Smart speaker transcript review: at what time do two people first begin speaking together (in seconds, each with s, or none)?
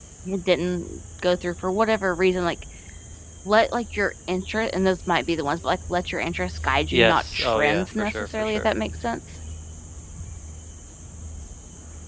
6.9 s